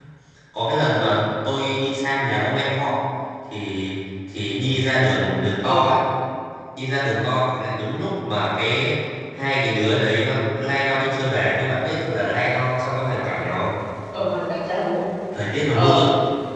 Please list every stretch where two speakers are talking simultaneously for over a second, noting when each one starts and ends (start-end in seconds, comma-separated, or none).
none